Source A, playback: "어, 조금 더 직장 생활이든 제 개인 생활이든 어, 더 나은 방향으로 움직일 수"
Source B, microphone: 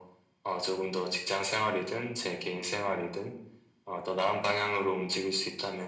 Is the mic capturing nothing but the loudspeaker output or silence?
Yes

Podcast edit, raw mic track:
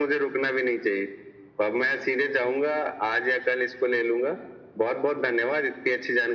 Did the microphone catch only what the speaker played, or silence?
Yes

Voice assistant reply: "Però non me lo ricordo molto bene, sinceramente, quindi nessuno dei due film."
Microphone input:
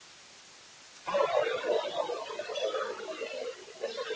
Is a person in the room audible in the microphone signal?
No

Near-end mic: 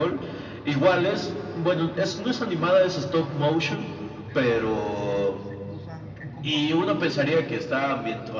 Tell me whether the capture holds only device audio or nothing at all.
No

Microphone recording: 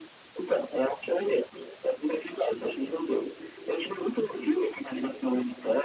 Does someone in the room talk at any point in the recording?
No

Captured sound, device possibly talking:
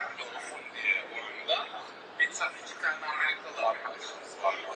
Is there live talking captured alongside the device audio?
No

